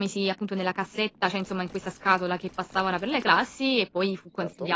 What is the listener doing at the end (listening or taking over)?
listening